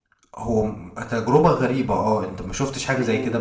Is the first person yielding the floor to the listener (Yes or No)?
Yes